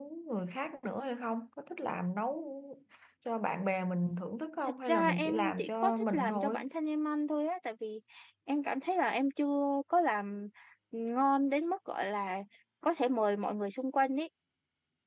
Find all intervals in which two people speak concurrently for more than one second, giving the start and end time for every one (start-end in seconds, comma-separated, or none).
4.9-6.6